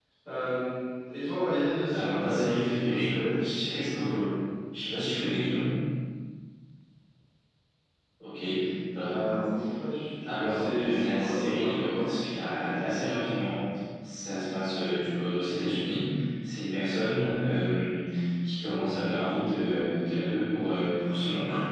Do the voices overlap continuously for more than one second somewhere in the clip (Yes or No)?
Yes